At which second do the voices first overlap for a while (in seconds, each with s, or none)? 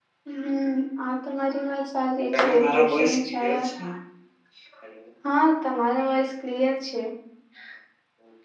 2.3 s